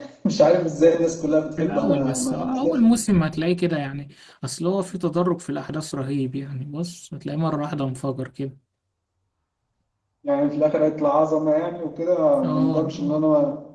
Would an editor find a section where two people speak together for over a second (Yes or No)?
Yes